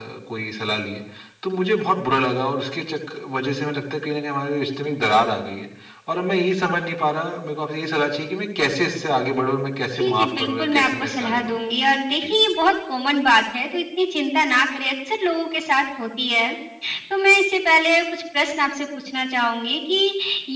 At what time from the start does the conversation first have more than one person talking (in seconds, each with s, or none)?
10.0 s